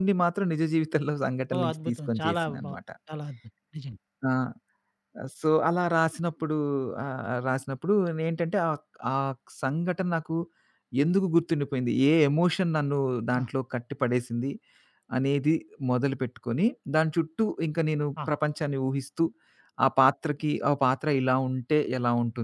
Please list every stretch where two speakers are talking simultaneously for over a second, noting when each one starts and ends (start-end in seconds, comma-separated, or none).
1.5-2.8